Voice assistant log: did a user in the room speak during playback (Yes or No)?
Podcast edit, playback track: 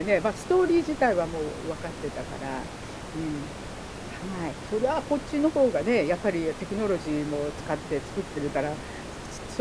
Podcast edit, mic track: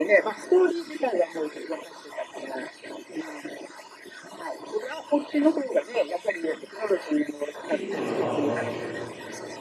Yes